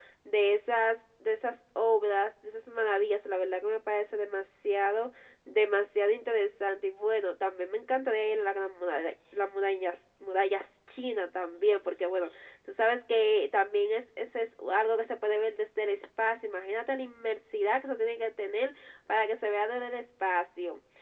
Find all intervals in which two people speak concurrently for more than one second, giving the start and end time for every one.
none

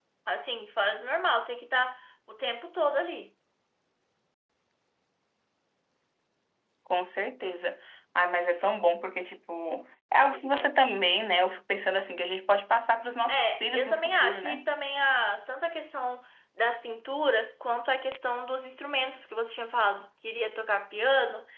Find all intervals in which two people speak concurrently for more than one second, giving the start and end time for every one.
13.3-14.7

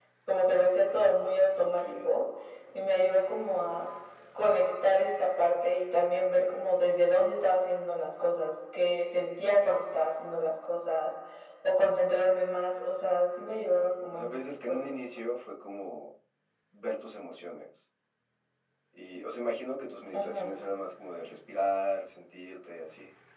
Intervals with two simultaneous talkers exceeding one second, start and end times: 13.6-15.0

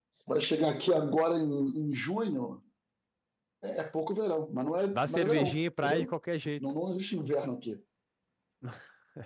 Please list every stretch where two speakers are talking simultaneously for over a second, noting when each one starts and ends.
4.9-6.1

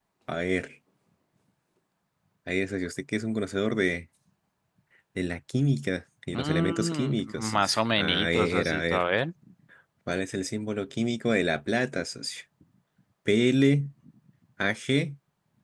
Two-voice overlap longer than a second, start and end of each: 6.3-9.0

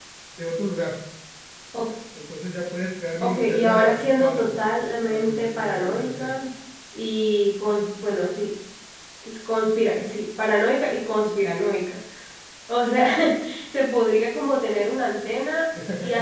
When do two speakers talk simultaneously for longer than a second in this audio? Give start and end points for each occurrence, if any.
3.2-4.5, 5.0-6.4

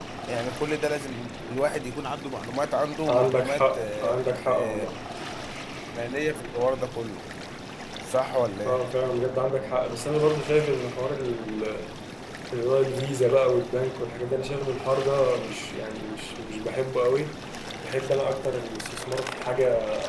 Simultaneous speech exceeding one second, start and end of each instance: 3.1-5.0

